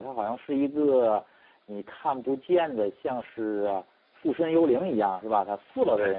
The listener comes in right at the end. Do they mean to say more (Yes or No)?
No